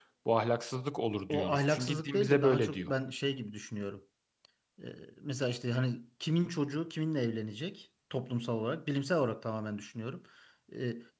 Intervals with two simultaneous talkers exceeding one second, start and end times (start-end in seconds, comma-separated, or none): 1.3-2.9